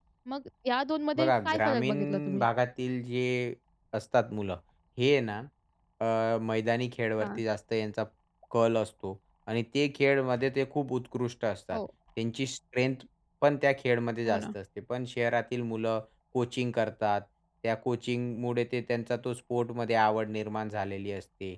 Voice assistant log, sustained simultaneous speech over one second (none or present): present